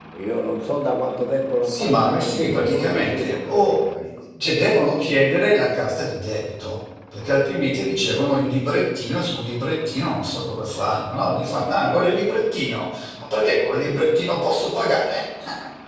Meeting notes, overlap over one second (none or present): present